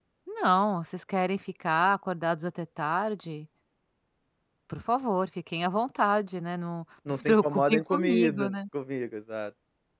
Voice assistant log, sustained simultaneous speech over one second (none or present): present